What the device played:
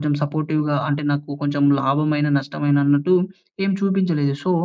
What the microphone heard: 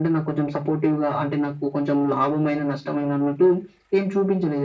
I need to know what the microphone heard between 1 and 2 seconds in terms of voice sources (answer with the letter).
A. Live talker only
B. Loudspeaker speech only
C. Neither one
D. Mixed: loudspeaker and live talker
B